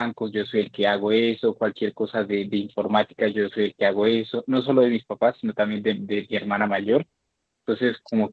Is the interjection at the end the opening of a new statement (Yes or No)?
No